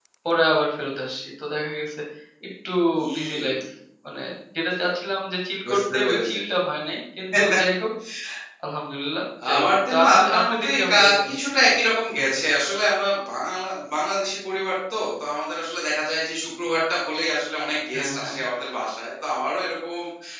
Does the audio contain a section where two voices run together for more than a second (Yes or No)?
Yes